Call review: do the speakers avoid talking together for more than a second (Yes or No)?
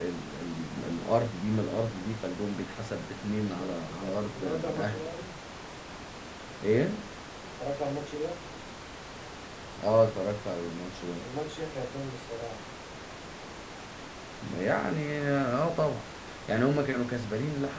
No